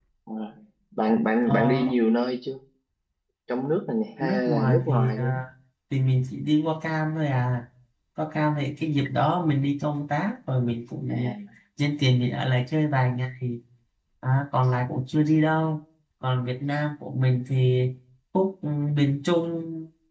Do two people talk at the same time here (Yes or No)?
Yes